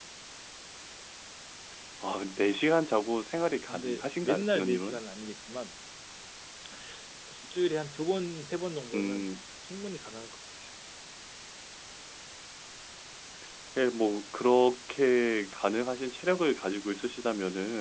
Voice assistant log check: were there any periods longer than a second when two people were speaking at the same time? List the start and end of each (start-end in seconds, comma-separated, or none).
3.7-5.0